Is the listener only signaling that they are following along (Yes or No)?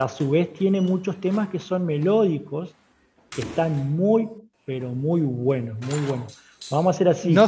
No